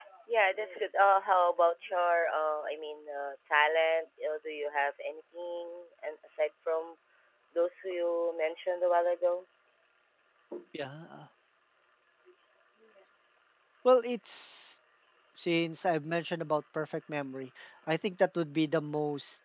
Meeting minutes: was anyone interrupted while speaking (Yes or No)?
No